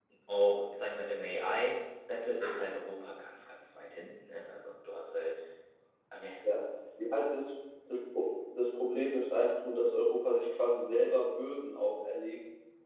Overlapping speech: No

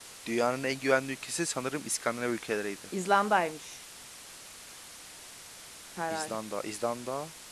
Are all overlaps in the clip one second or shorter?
Yes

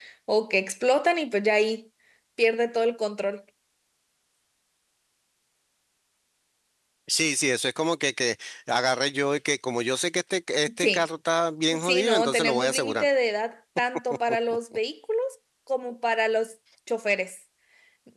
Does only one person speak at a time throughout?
No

